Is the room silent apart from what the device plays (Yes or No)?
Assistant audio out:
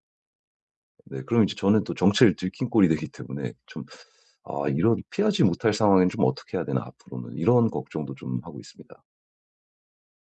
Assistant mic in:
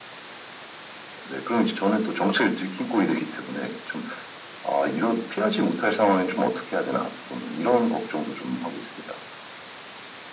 Yes